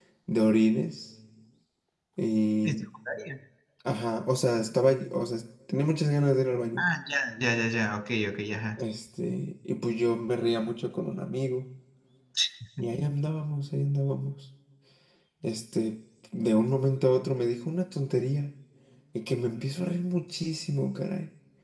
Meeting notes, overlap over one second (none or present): none